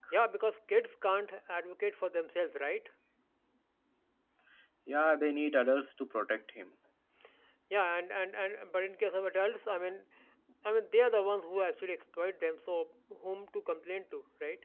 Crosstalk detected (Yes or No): No